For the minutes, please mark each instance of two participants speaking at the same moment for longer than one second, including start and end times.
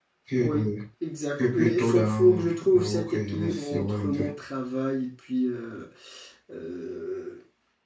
1.5-4.3

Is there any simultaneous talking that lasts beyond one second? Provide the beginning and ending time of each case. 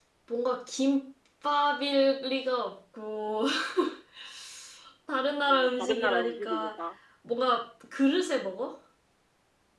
5.5-6.7

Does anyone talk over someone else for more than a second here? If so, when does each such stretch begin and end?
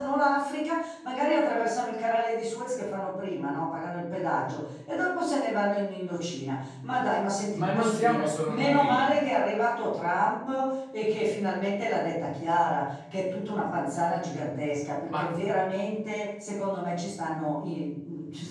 7.5-9.1

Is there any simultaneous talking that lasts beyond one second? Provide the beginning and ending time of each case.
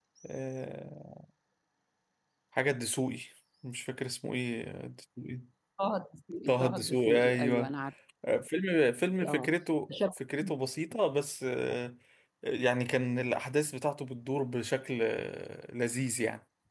6.5-7.7

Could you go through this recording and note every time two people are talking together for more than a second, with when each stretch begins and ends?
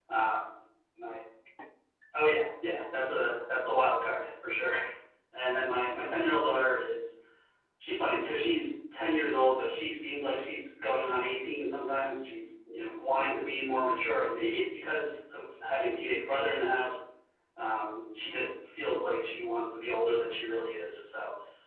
none

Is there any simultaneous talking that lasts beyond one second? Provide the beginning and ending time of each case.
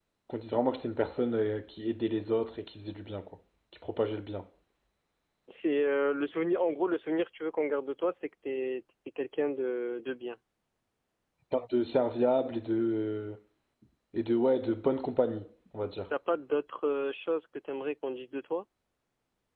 none

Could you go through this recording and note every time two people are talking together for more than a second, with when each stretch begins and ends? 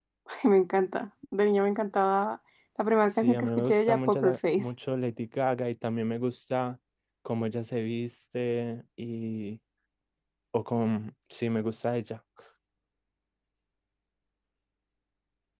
3.1-4.7

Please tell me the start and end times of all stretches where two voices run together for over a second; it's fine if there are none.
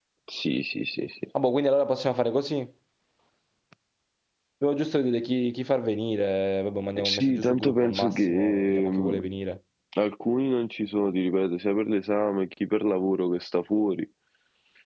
7.0-9.2

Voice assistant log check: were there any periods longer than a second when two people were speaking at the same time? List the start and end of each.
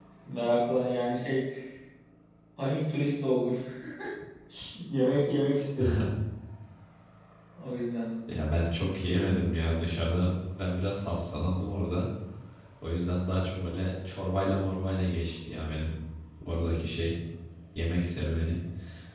none

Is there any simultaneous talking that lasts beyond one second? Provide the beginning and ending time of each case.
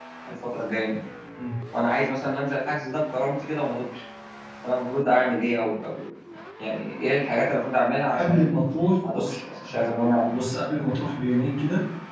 none

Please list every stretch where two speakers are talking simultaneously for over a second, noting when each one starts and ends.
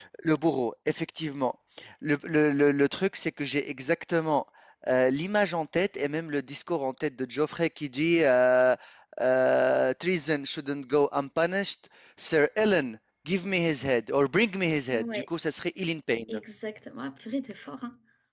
none

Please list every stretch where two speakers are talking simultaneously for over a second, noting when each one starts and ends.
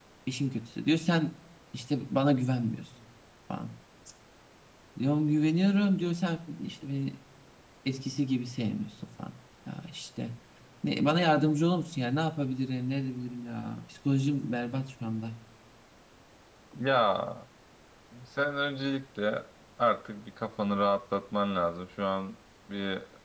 none

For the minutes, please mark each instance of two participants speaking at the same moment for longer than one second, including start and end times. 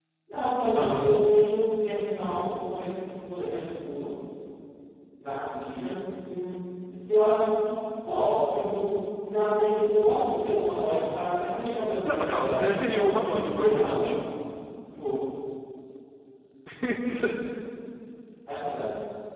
12.0-14.1

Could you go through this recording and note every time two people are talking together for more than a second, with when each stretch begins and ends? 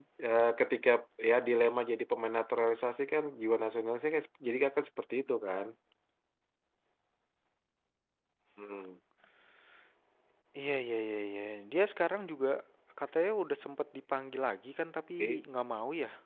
none

